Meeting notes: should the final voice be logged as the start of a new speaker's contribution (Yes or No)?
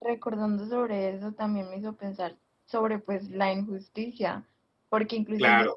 No